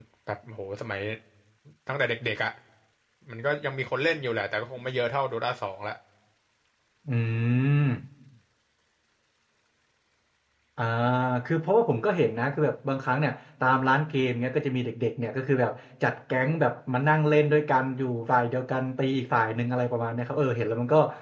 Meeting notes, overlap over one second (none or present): none